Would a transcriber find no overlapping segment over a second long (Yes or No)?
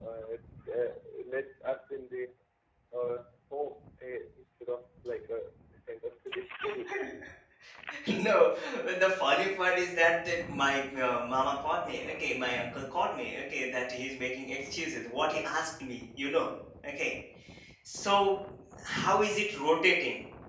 Yes